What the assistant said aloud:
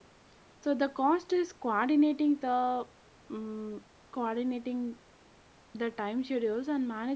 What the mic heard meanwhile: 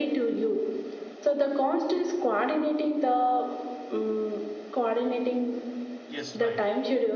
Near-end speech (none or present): present